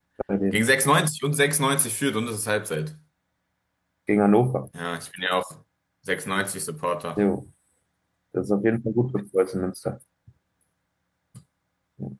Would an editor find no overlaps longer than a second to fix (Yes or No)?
Yes